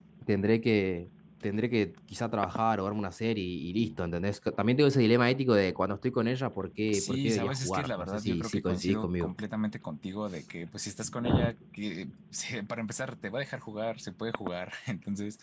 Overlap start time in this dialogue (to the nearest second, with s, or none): 7 s